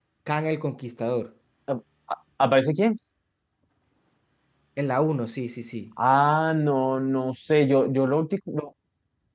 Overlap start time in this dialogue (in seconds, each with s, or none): none